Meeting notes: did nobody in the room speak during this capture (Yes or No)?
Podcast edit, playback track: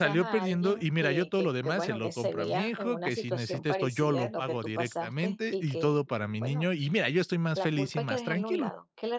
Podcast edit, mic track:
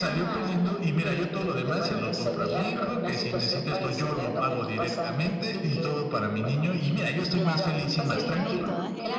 No